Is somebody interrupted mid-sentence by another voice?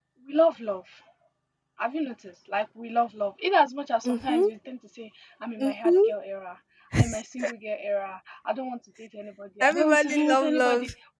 Yes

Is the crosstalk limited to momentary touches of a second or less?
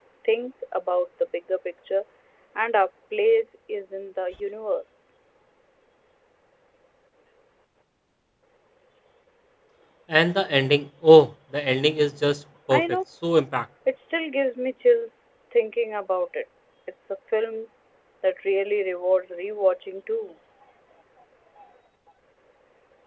Yes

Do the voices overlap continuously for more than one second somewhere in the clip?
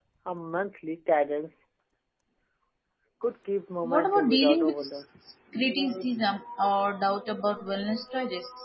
Yes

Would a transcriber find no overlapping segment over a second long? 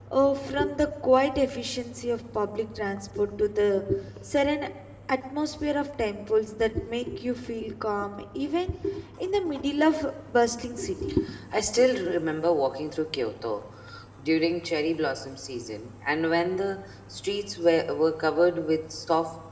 Yes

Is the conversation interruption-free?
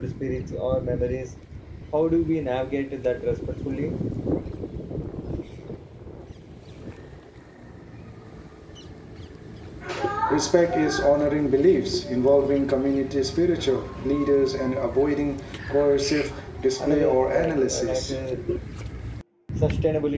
No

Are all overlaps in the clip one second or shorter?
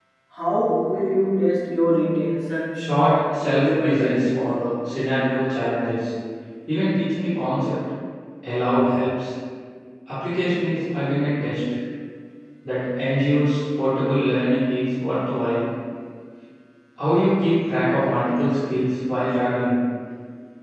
No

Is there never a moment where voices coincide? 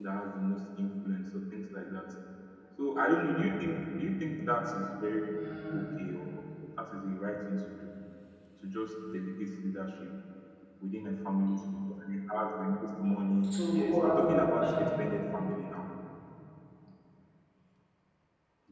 No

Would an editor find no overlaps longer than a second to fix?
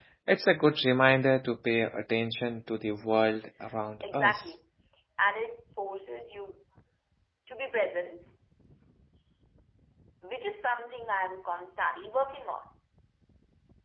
Yes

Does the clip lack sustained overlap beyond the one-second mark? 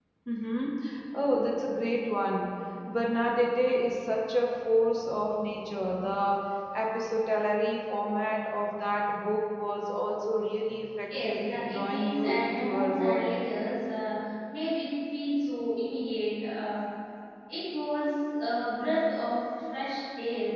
No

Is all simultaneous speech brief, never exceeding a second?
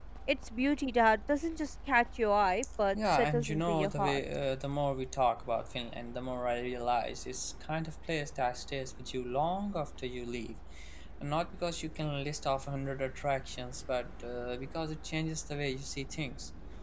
No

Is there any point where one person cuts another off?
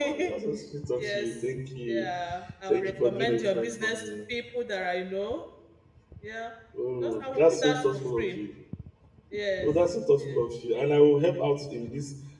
Yes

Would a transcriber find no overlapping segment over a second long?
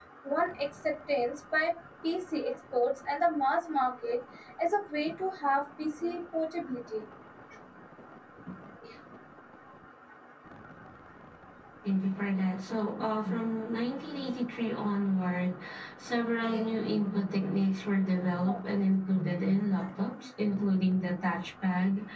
Yes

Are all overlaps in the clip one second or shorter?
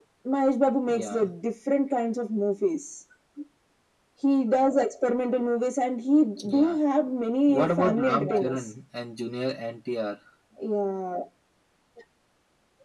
No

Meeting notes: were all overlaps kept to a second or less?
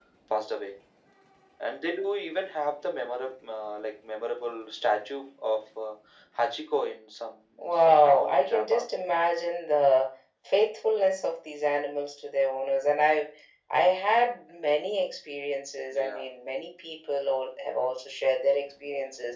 No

